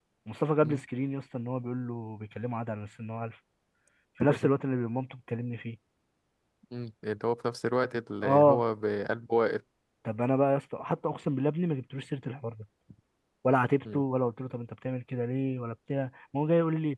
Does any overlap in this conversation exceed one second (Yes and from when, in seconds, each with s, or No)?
No